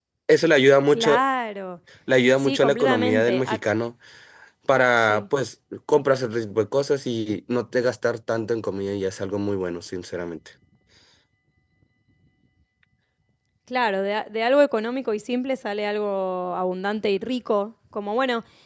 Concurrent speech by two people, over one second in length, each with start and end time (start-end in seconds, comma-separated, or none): 2.3-3.6